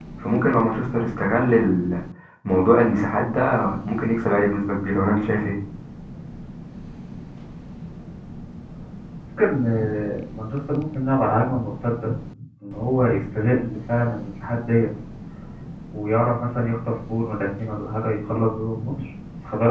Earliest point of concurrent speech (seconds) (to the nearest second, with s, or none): none